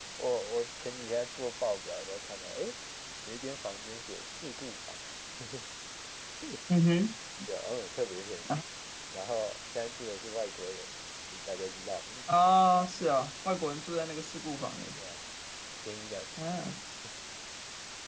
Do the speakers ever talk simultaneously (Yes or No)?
No